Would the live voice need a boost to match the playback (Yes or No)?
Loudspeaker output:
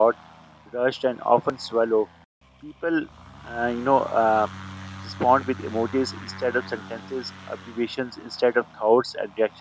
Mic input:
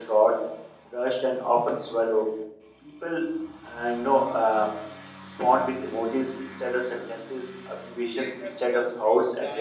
Yes